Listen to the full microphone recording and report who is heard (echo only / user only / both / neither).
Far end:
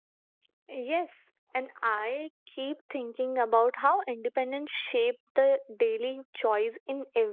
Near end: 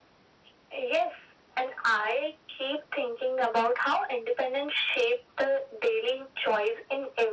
echo only